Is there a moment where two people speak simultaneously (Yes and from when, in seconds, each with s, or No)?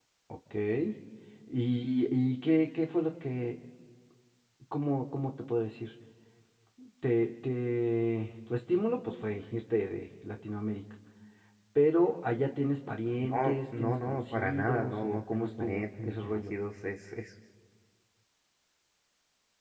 Yes, from 13.2 s